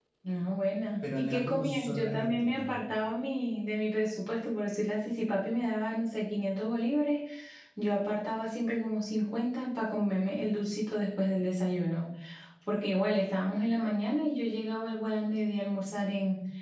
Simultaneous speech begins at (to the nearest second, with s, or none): 1 s